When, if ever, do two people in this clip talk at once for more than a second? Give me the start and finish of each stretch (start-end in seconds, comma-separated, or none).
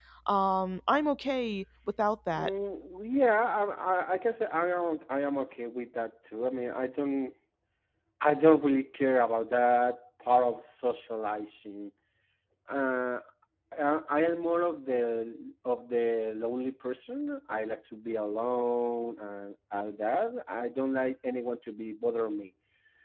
none